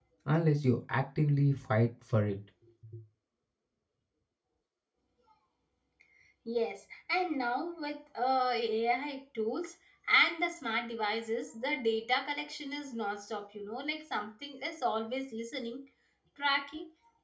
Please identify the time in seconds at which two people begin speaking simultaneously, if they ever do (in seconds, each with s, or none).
none